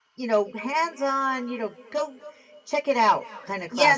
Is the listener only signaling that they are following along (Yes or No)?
No